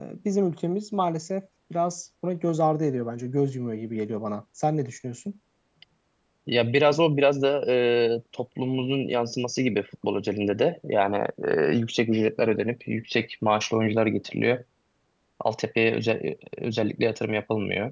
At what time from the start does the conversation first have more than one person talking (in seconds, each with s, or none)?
none